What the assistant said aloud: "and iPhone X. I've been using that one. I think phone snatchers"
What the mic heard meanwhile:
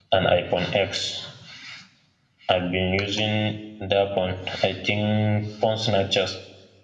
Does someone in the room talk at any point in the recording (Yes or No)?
No